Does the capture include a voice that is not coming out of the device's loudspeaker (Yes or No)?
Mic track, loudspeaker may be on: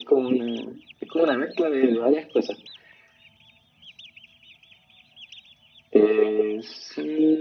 No